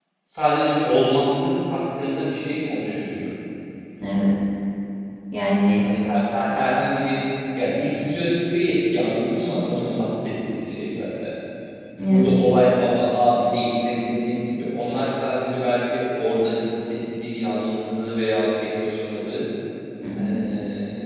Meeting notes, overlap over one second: none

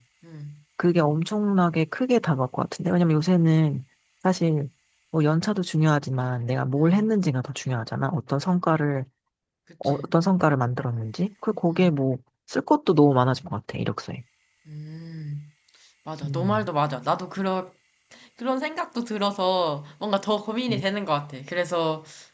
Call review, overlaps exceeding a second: none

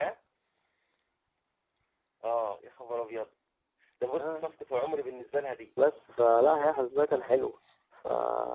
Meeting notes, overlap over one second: none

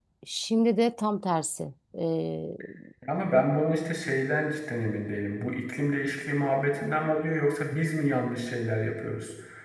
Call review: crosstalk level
none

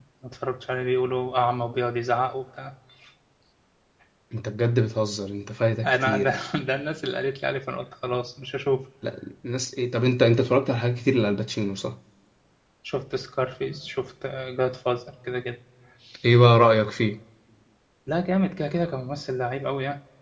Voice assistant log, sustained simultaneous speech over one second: none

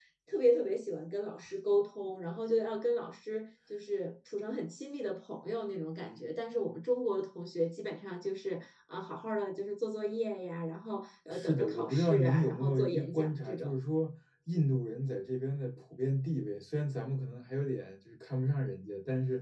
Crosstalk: present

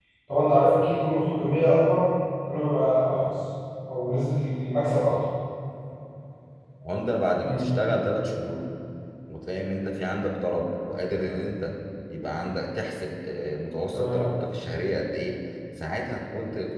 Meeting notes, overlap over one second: none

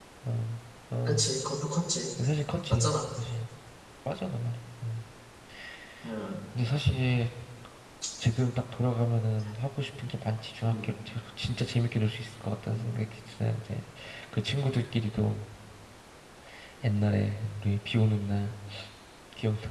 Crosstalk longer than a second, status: none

